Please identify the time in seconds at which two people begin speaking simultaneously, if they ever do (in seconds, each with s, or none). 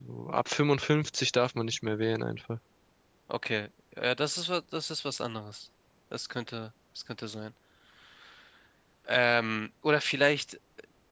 none